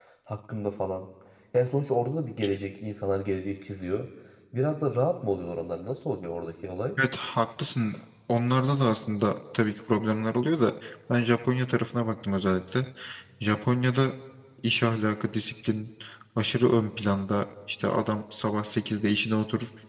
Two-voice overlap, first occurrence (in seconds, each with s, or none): none